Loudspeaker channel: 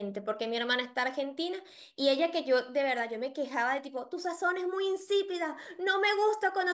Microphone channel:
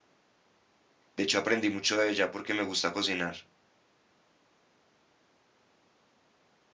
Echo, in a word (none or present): none